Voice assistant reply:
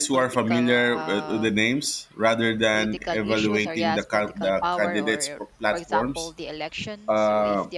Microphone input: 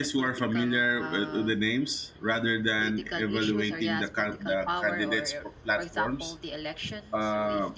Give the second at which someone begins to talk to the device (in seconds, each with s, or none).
none